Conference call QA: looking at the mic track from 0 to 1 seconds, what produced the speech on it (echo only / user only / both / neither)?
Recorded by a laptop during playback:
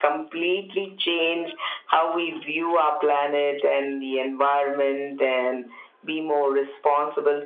echo only